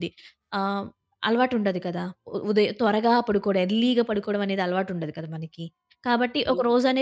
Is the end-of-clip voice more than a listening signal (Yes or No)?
No